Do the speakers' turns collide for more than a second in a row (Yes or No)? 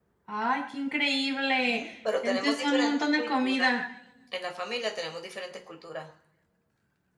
Yes